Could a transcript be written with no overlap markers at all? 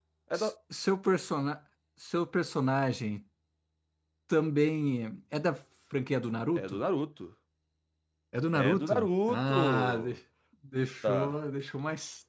No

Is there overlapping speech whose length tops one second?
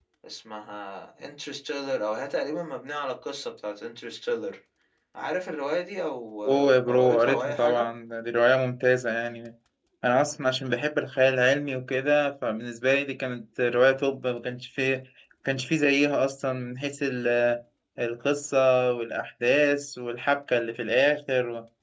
Yes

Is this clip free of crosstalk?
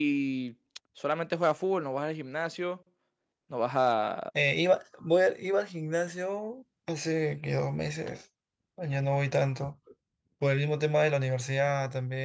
Yes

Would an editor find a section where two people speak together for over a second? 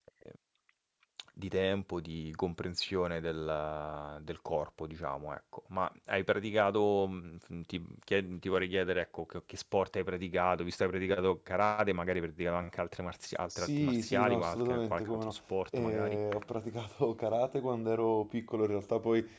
Yes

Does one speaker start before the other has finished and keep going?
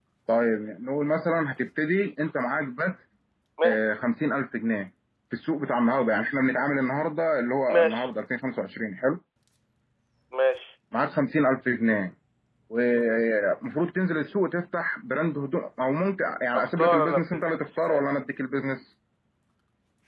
Yes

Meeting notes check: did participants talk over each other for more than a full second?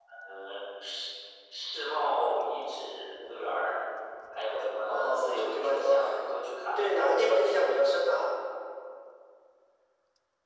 Yes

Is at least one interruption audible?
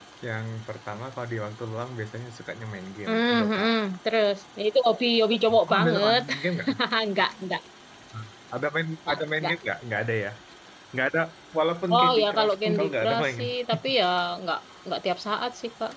Yes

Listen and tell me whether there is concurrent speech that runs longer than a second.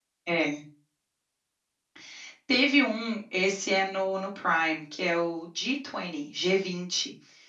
No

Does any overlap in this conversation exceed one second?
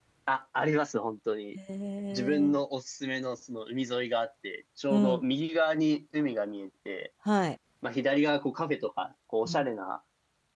No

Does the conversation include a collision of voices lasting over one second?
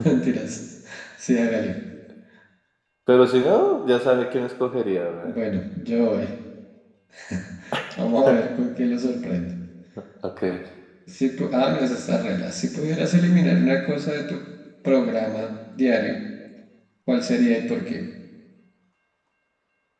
No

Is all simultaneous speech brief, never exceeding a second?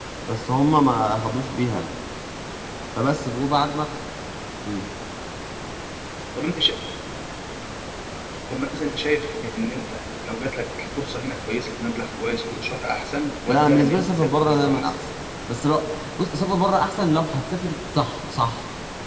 No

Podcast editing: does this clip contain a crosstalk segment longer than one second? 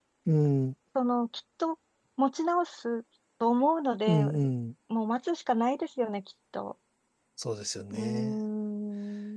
No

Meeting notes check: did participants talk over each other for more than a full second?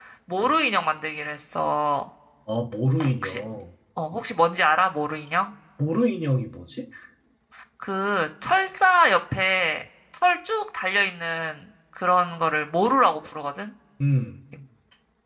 No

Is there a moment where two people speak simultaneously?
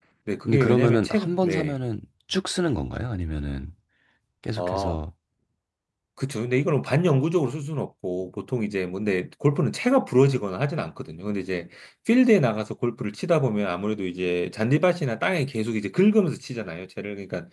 Yes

